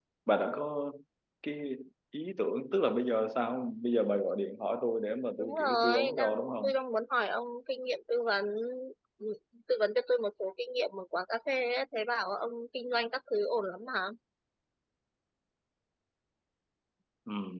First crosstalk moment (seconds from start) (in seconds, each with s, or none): 5.4 s